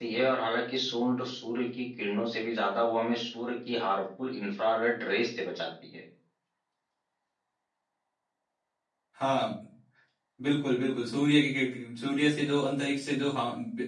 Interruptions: none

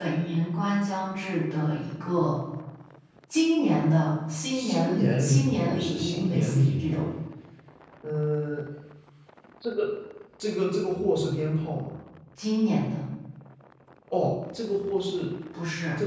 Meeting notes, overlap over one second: present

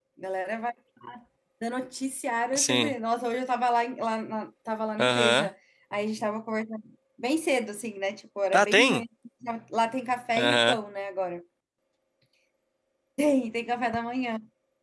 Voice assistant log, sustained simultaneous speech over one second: none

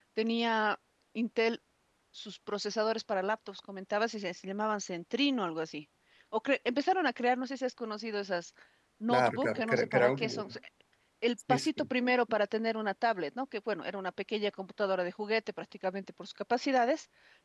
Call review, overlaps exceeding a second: present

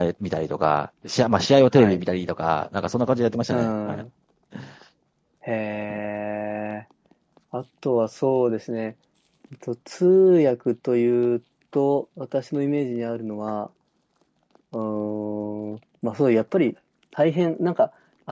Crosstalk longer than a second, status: none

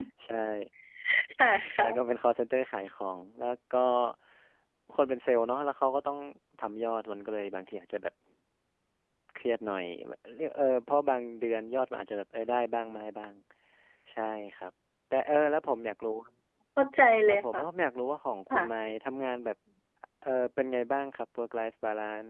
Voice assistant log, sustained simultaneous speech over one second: none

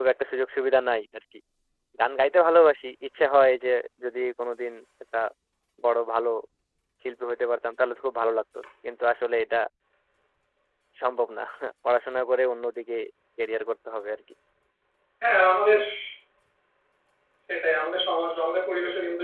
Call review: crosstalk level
none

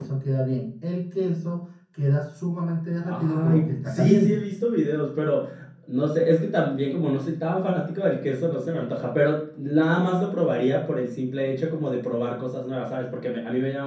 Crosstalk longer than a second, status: present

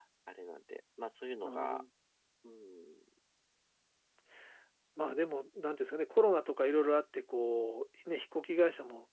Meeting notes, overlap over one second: none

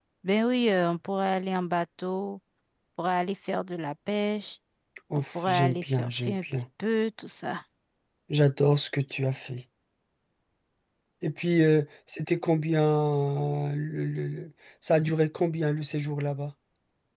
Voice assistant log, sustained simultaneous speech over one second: present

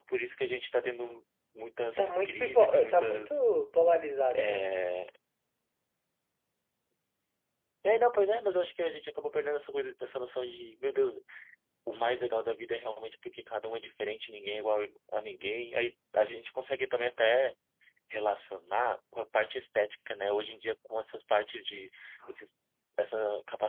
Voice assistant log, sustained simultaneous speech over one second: present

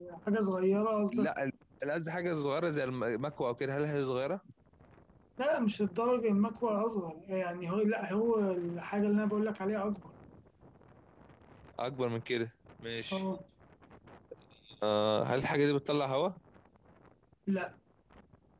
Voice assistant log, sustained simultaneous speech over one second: none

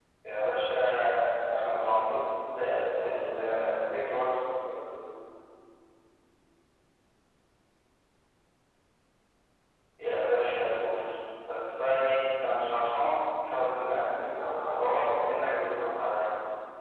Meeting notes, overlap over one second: present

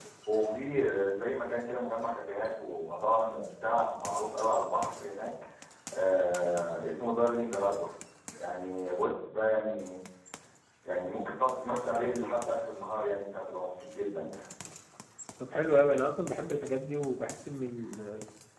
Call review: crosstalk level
none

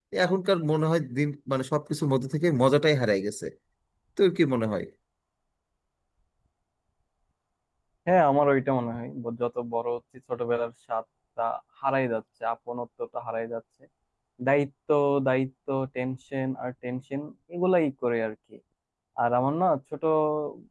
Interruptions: none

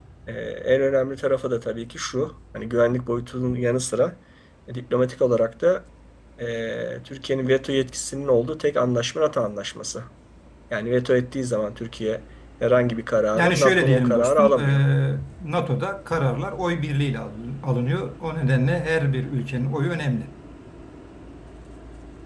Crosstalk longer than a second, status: present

